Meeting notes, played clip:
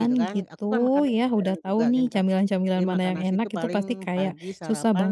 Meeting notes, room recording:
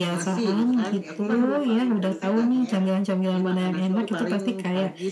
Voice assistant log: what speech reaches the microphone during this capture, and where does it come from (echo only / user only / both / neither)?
both